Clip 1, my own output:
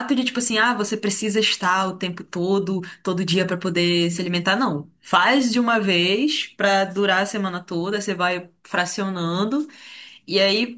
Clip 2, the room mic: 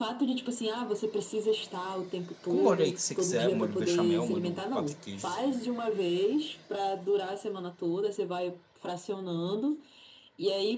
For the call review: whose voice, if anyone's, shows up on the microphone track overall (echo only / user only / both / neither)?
both